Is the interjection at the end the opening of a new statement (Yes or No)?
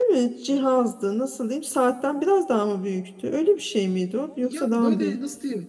Yes